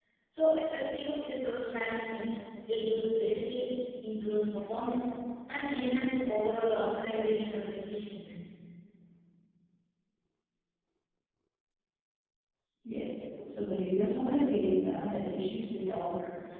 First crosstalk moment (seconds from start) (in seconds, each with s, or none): none